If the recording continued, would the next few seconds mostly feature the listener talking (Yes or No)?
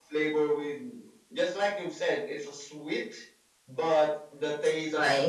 No